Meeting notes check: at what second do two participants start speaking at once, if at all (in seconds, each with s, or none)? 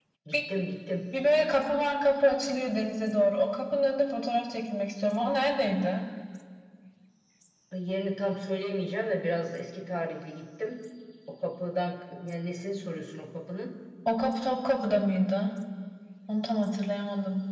none